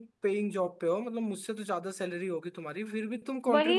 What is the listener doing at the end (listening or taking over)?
taking over